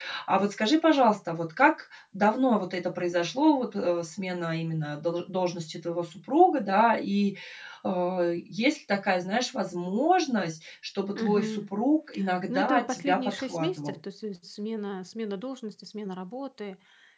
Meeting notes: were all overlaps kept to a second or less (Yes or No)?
No